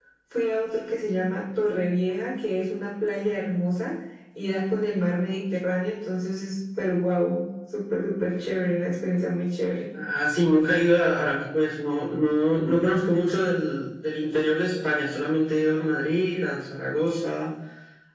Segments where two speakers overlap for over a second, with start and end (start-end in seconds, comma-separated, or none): none